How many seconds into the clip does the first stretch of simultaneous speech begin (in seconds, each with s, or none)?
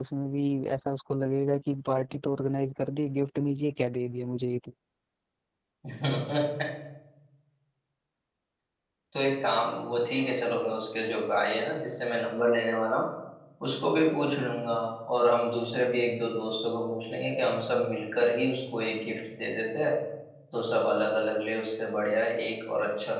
none